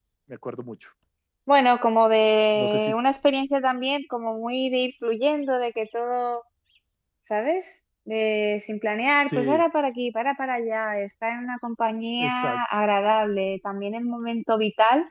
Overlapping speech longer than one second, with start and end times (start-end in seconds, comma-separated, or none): none